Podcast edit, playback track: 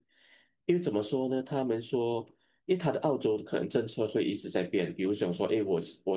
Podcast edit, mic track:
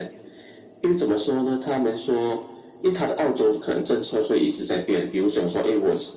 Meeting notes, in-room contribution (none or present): none